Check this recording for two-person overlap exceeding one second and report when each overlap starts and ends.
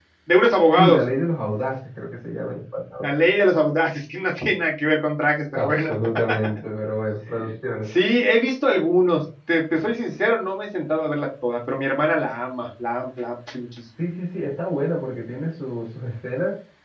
none

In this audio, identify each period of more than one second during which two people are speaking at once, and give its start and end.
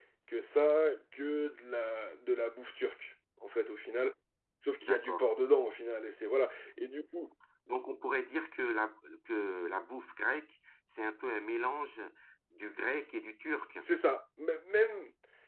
none

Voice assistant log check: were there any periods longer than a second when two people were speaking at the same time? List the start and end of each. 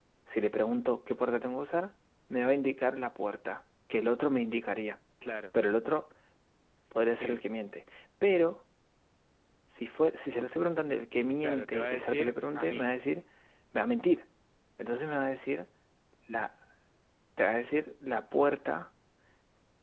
11.4-12.9

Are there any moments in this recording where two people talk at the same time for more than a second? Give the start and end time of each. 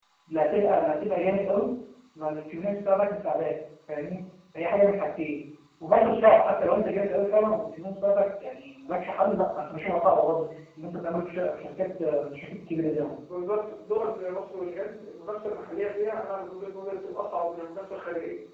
none

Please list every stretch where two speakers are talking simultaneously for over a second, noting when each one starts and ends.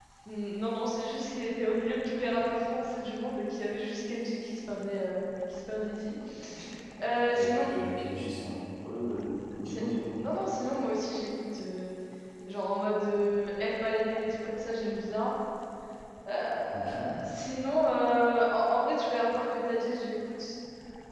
none

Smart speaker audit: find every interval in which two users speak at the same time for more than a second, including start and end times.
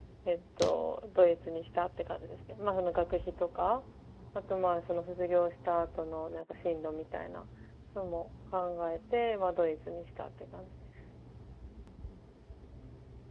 none

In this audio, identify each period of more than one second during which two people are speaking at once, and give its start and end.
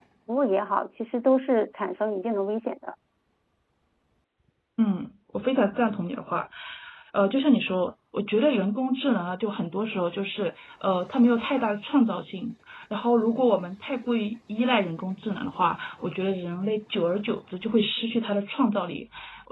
none

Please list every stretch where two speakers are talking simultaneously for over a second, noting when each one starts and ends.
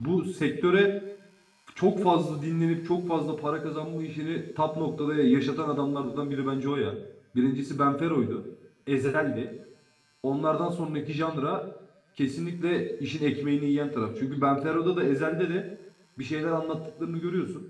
none

